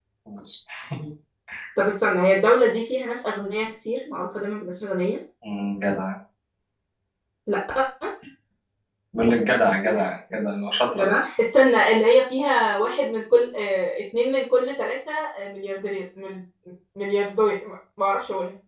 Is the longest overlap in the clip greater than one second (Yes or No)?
No